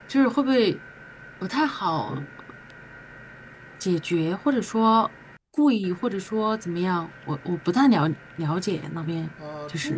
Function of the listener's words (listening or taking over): taking over